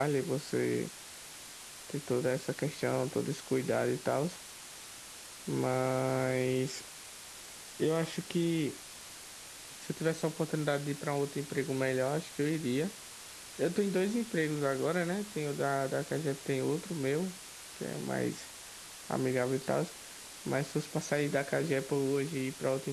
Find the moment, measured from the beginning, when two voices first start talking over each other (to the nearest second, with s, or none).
none